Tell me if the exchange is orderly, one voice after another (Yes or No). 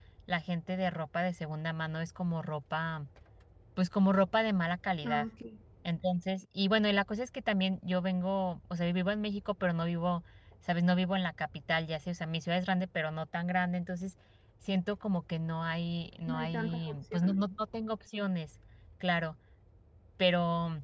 No